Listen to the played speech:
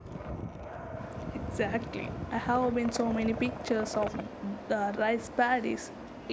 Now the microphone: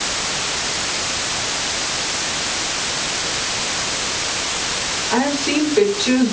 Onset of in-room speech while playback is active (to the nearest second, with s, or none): 5 s